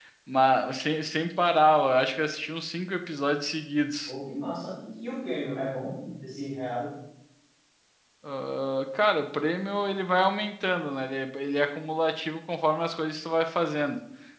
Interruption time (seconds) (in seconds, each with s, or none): none